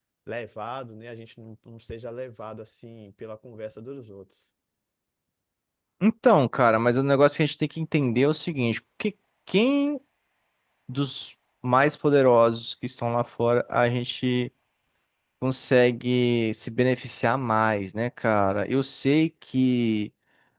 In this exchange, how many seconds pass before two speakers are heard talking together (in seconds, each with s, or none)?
none